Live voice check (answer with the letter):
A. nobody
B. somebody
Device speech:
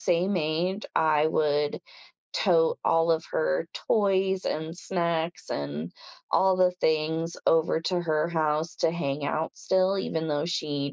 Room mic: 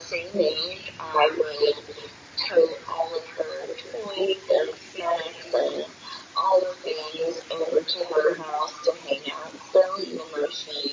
A